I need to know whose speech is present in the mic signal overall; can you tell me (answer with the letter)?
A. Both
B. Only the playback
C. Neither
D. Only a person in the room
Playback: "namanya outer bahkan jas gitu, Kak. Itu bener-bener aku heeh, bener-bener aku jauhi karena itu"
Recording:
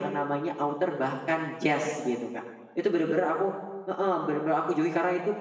B